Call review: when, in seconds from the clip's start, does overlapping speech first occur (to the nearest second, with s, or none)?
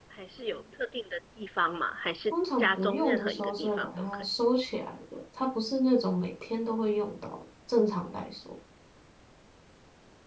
2 s